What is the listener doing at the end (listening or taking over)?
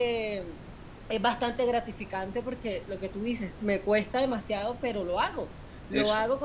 listening